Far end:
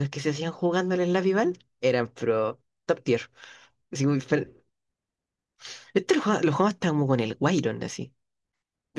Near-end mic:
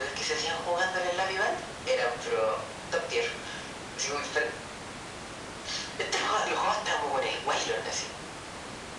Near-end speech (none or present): none